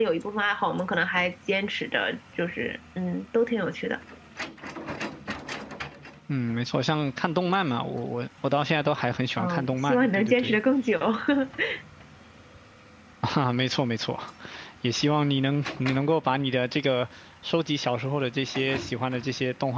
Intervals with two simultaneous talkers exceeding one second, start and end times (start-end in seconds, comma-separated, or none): 9.4-10.6